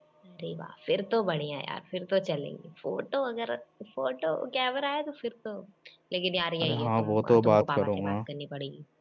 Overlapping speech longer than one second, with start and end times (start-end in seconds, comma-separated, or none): 6.6-8.2